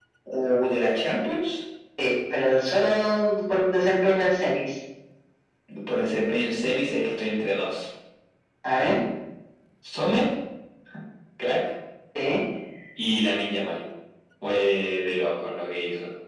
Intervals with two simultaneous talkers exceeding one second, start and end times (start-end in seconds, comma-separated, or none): none